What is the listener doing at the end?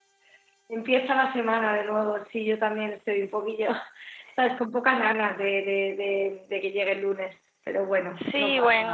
taking over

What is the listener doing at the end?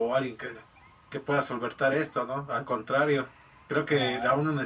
listening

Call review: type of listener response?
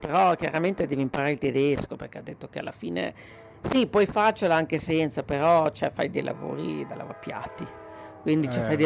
listening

